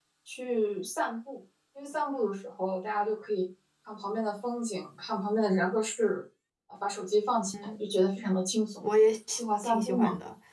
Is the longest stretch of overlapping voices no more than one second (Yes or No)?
Yes